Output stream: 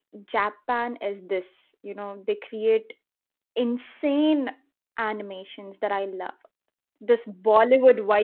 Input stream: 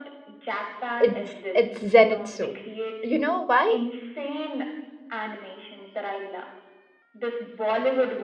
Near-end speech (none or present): present